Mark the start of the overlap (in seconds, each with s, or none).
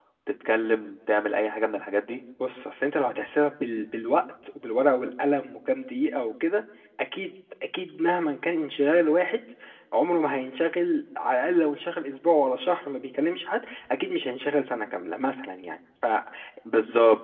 none